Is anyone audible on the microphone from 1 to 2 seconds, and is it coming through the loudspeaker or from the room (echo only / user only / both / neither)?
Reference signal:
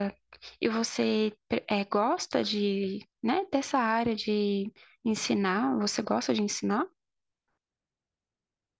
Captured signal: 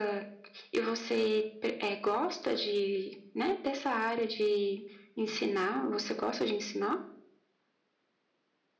echo only